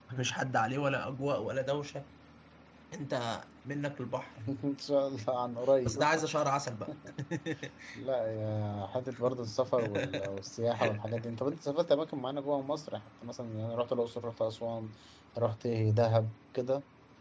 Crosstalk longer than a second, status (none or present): none